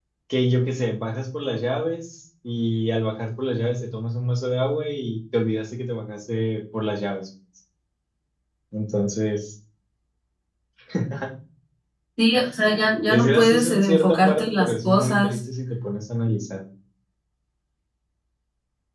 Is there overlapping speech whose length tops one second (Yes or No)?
Yes